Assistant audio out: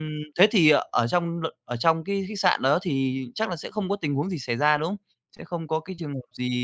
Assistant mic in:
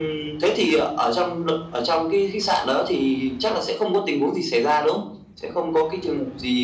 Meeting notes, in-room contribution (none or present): none